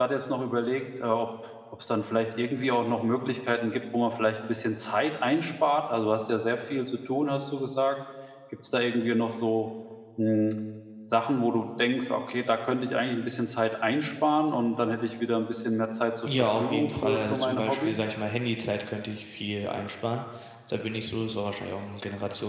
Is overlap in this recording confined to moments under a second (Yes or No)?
No